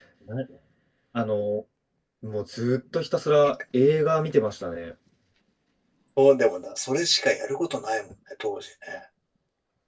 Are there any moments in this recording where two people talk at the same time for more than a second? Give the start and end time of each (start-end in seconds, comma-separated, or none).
none